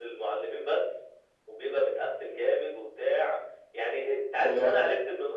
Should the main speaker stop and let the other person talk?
No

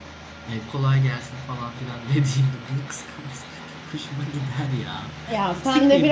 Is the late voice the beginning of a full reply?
Yes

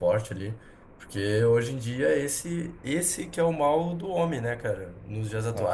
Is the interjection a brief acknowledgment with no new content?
Yes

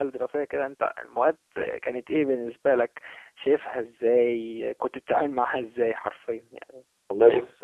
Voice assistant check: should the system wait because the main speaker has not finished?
No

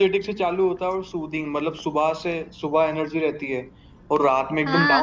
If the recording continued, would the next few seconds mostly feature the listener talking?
Yes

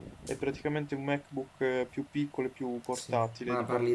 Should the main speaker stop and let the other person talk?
Yes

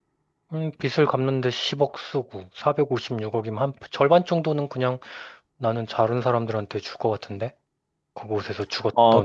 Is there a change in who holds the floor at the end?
Yes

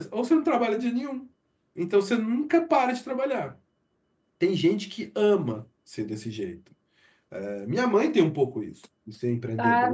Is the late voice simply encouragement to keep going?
No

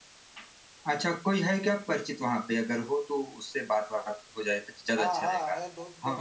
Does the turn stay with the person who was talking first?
No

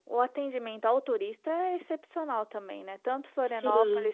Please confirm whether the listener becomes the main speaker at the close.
No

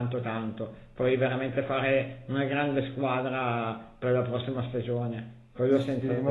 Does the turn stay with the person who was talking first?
No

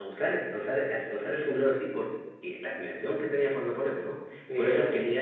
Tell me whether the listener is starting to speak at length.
No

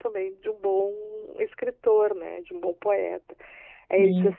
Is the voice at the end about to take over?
No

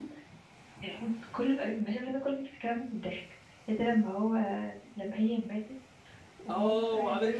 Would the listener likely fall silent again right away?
No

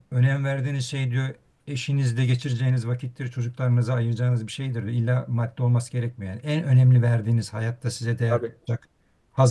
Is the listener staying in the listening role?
Yes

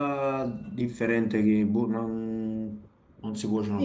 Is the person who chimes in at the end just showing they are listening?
No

